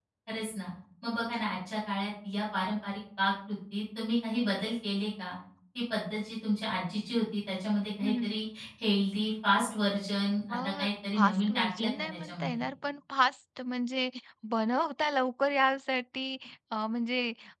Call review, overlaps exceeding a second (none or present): present